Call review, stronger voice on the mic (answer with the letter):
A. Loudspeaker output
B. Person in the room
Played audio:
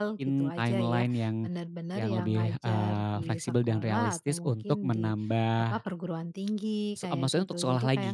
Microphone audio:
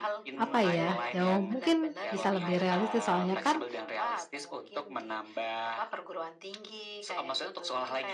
B